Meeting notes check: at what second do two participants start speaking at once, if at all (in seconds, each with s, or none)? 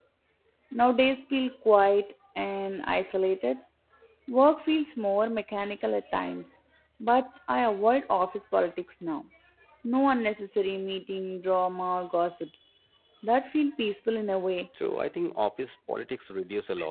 none